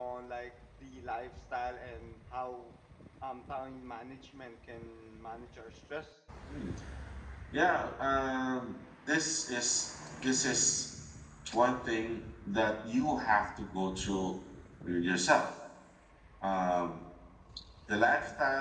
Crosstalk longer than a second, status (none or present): none